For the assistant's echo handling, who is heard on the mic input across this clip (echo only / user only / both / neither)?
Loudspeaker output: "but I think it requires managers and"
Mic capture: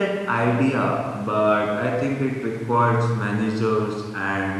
echo only